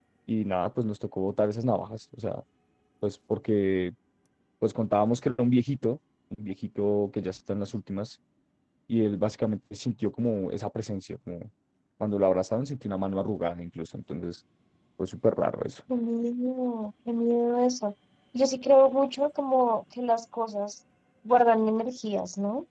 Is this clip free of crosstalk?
Yes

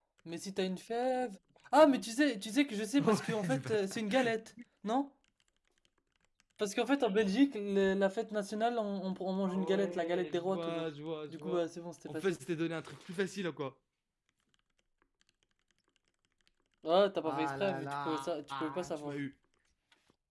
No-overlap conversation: No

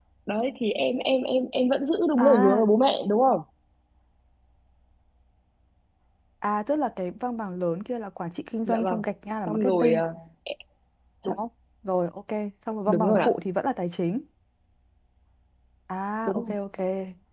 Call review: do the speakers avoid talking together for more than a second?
Yes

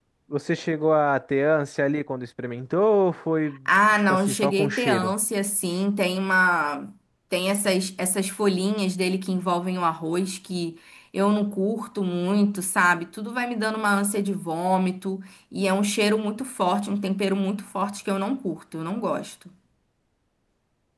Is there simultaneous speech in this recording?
Yes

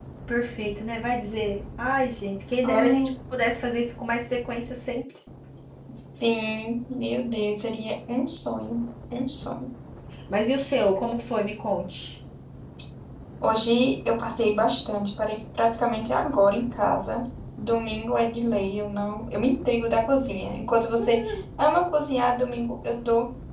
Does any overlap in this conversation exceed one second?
No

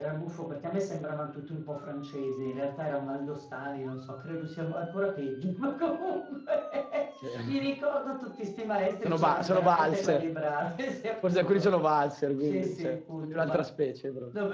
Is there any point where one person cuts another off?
Yes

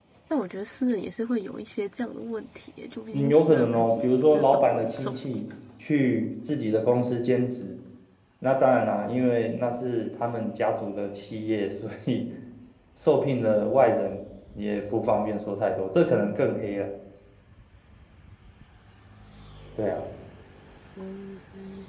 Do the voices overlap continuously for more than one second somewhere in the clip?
Yes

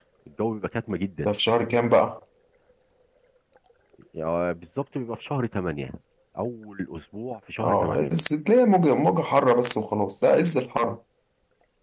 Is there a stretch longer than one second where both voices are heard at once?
No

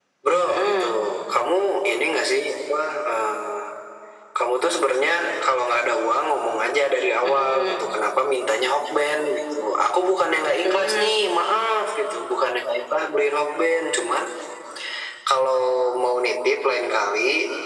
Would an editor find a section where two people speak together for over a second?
No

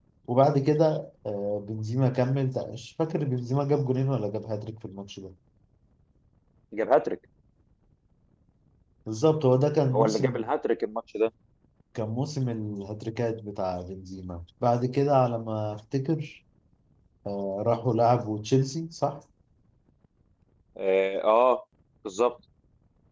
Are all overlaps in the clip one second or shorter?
Yes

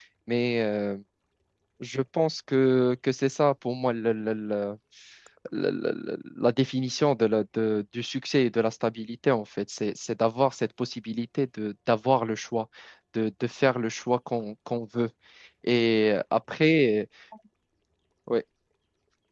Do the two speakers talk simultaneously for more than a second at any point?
No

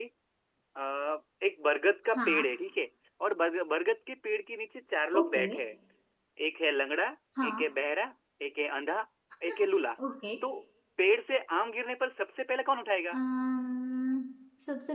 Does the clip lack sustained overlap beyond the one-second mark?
Yes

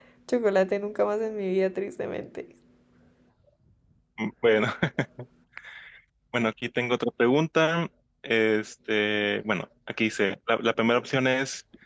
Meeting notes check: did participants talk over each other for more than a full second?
No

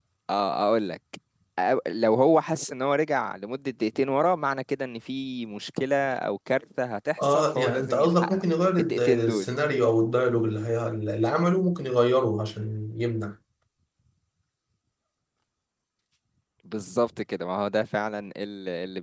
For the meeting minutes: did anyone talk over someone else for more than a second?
Yes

